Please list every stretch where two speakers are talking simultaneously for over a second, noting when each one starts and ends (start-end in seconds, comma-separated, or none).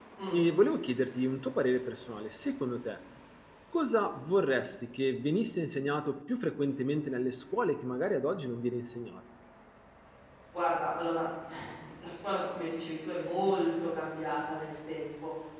none